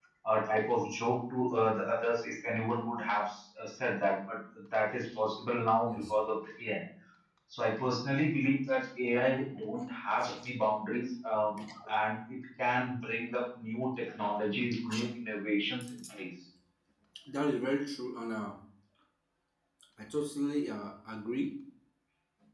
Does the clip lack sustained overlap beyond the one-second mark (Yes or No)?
Yes